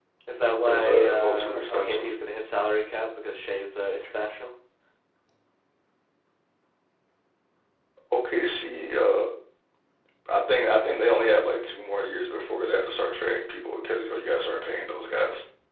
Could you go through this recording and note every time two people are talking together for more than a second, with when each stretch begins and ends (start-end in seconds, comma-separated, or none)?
0.7-2.1